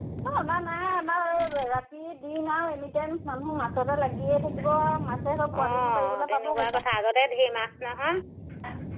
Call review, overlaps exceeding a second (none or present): present